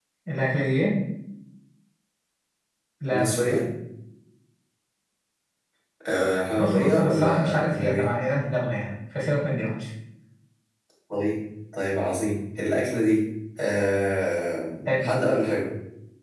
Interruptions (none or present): present